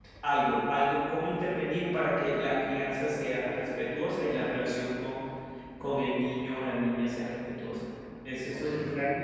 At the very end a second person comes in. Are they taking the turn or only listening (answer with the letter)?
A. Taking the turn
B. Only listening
B